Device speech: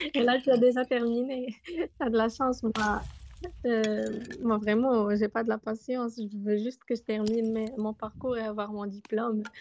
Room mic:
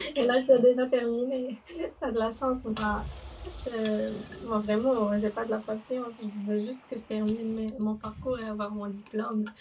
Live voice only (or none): none